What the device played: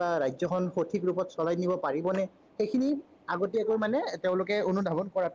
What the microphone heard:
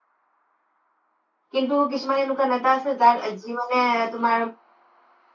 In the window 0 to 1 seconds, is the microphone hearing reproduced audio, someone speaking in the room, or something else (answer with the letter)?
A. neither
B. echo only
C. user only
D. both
A